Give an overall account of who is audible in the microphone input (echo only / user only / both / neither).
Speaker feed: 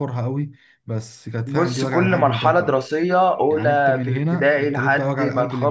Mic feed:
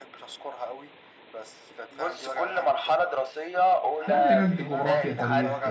both